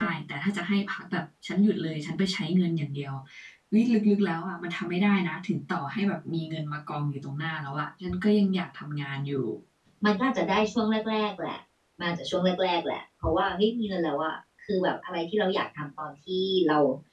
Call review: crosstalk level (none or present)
none